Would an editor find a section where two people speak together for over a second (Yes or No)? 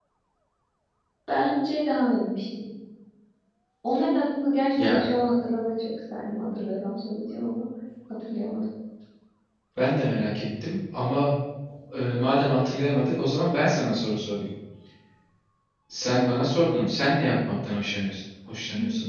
No